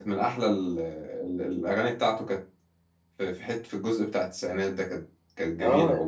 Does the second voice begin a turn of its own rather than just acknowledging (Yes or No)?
Yes